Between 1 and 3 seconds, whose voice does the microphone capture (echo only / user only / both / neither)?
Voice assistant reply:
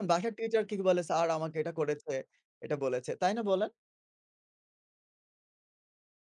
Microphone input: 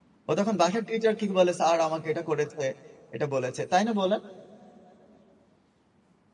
echo only